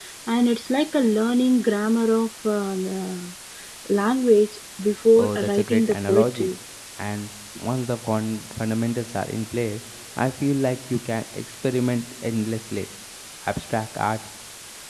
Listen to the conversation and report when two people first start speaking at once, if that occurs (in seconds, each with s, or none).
5.2 s